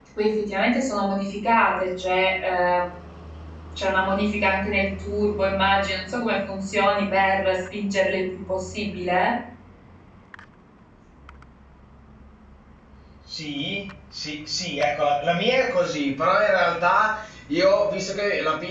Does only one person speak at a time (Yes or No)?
Yes